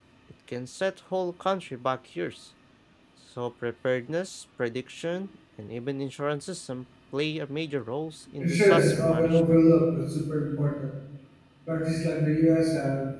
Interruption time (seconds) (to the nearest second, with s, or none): 8 s